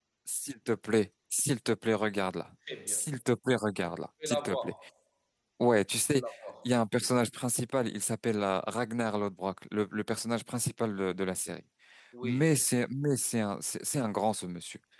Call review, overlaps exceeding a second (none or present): none